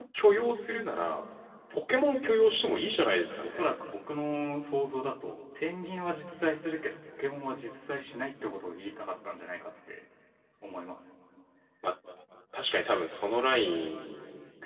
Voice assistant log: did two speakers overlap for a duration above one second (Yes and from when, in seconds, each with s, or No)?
No